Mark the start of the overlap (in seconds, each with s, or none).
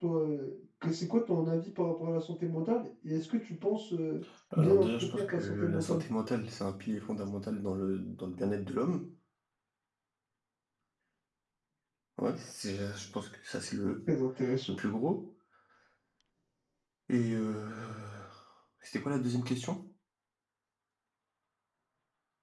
4.6 s